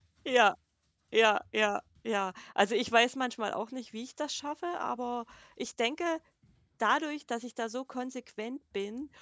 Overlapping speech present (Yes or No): No